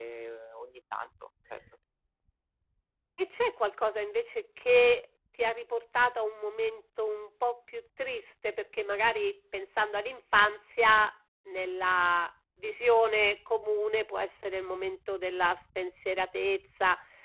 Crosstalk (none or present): none